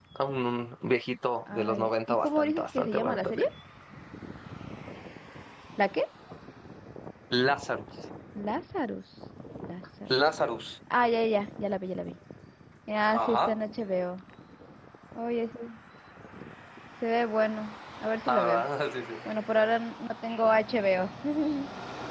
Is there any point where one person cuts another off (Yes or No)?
Yes